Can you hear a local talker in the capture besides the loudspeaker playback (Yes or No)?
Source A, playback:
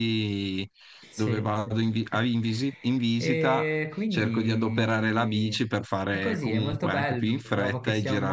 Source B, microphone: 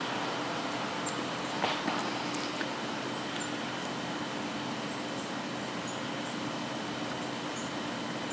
No